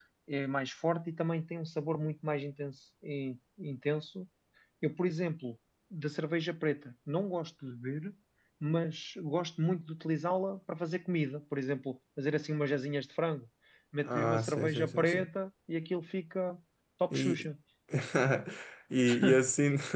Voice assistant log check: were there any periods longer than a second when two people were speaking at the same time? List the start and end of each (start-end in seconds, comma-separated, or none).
14.0-15.3